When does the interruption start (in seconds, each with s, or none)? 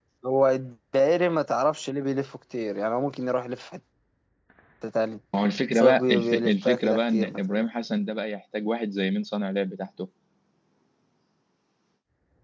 5.7 s